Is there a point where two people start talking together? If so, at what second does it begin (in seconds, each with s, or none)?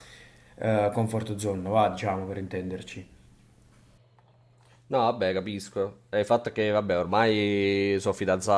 none